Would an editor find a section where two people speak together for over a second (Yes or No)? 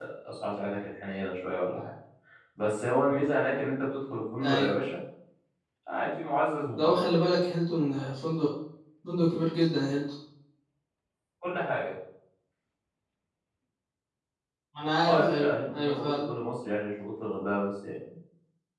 Yes